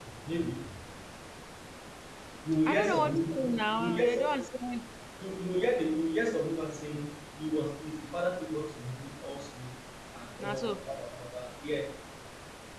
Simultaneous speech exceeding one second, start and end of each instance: 2.7-4.3

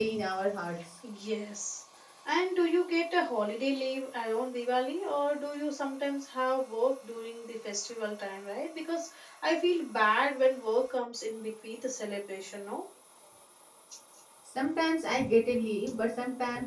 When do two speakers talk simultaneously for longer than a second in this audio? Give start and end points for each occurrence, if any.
none

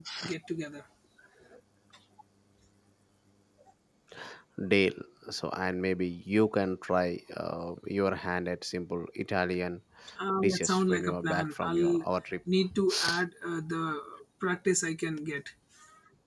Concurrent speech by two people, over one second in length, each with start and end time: 10.4-12.0

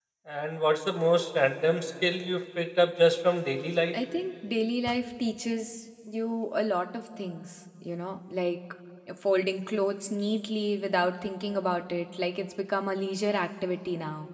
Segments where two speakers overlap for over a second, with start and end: none

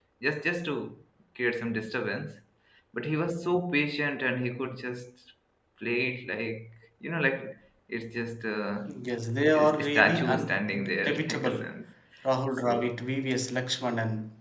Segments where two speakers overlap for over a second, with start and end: 9.6-11.7

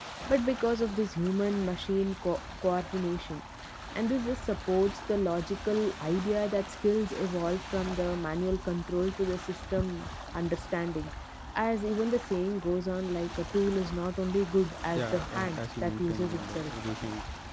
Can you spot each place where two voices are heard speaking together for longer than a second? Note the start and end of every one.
14.9-16.7

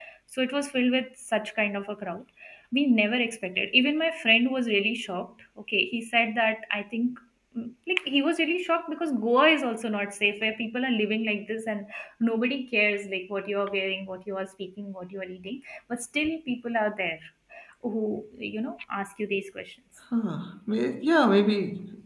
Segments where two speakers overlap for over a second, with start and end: none

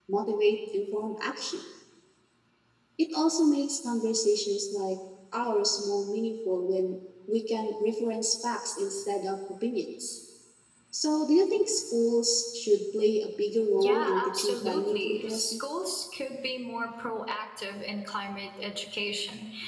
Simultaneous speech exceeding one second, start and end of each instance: 13.7-15.6

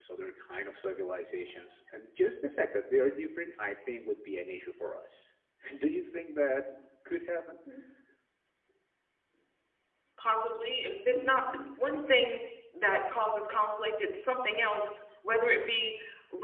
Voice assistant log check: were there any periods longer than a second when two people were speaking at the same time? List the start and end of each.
none

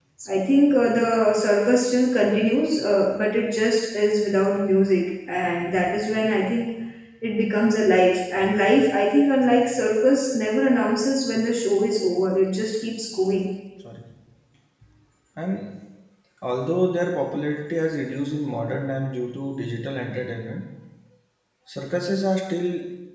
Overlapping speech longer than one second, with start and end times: none

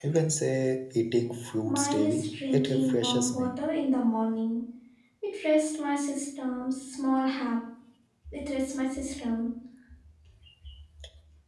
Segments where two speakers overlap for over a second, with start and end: 1.6-3.6

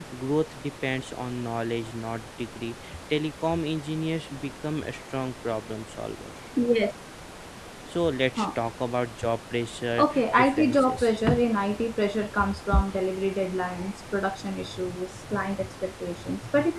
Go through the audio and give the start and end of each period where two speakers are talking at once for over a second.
10.0-11.2

